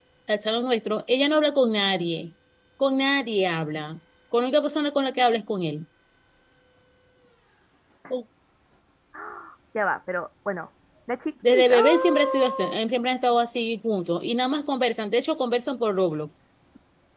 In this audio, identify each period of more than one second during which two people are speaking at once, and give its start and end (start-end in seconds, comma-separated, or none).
11.4-12.8